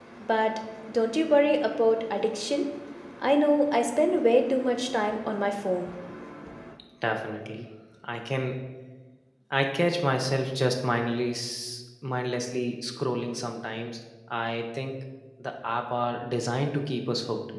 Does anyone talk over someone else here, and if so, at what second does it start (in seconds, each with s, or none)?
none